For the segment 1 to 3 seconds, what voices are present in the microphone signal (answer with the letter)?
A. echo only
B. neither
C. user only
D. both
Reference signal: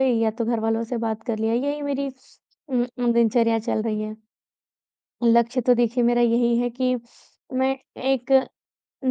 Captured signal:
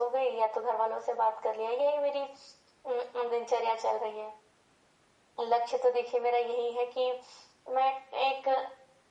A